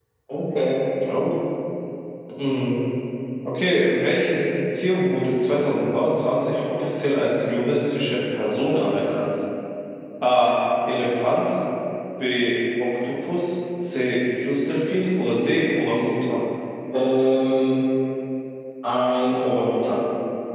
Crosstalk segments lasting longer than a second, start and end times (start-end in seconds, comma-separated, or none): none